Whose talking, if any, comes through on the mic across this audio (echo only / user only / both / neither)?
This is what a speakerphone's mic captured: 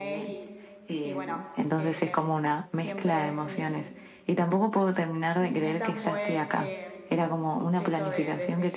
both